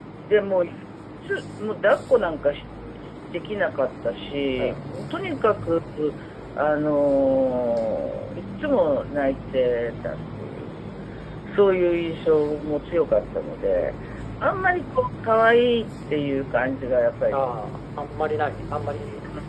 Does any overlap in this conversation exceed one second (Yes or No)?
No